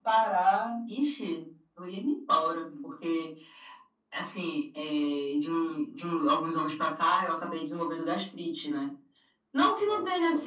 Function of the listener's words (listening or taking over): listening